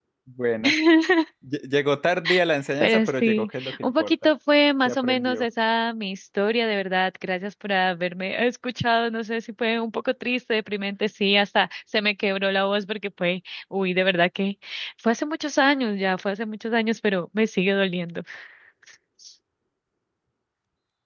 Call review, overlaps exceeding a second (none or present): present